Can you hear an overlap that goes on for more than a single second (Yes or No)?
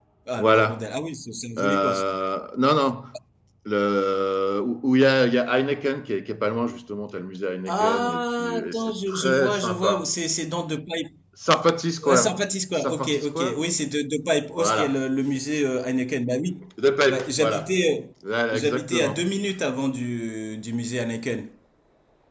Yes